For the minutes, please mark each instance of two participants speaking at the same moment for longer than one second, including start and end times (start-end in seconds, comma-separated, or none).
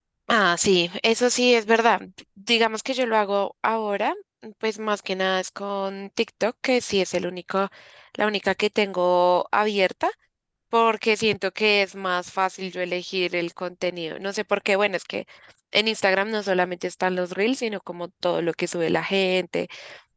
none